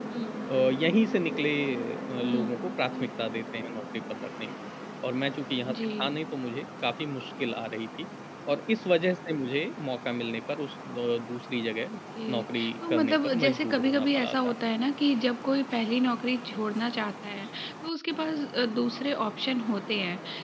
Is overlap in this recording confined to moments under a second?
No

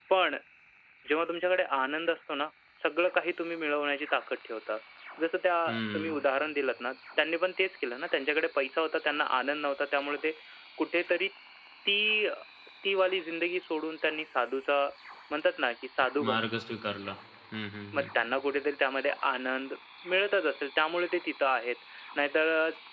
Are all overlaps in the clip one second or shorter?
Yes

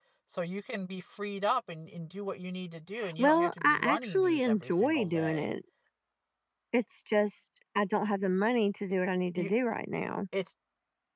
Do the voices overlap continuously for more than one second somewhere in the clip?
Yes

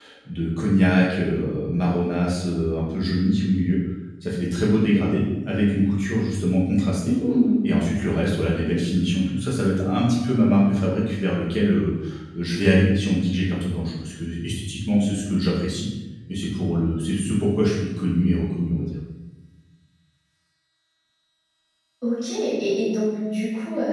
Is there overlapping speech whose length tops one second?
No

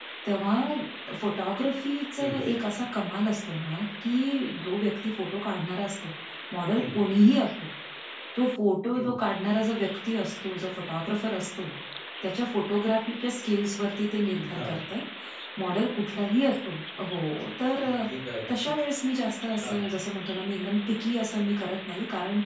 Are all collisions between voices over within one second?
Yes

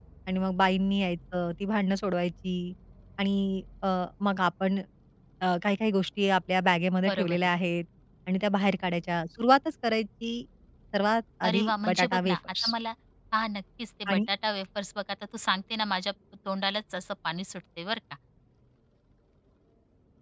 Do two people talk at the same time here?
Yes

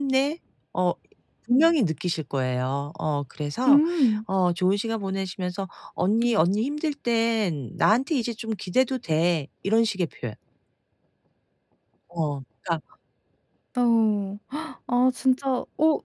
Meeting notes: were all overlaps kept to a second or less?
Yes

